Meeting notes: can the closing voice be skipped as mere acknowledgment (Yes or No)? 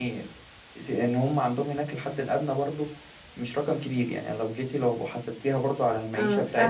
No